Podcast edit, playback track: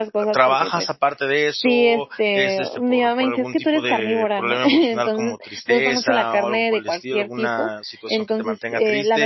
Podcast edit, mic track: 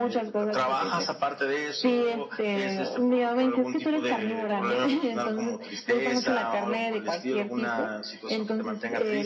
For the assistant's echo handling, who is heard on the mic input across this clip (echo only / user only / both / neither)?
echo only